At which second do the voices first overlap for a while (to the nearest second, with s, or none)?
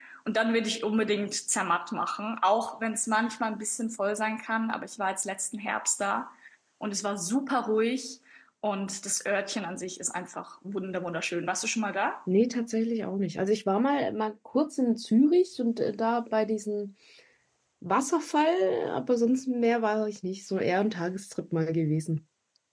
none